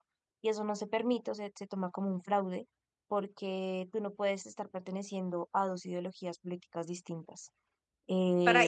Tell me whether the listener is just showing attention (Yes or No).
No